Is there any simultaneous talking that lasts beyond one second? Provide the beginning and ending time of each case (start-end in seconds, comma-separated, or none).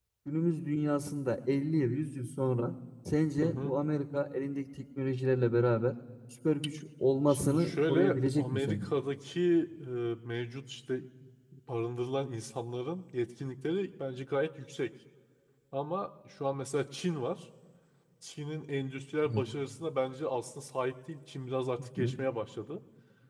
7.3-8.9